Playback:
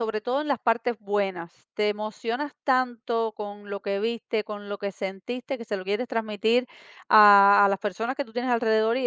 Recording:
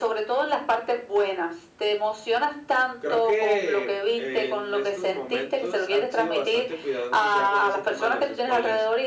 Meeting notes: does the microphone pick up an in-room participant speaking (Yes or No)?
Yes